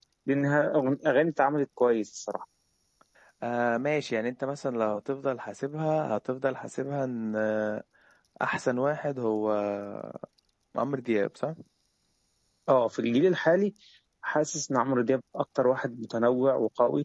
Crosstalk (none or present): none